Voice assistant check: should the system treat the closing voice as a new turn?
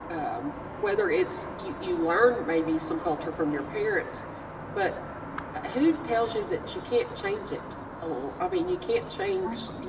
Yes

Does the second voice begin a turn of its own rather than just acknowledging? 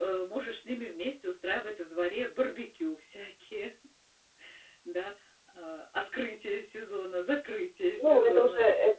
Yes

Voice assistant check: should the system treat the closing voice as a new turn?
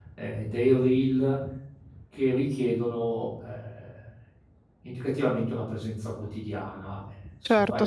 Yes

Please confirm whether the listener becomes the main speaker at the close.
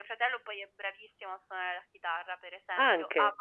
No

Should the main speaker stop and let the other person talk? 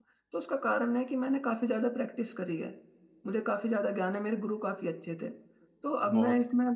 No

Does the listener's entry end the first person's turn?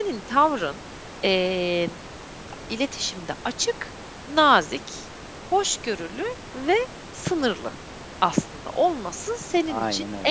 No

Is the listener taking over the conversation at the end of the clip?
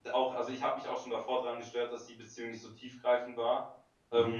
No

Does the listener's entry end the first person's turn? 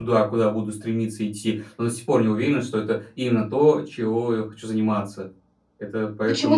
Yes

